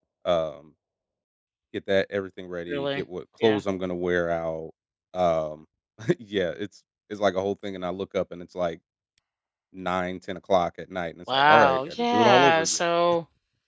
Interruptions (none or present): present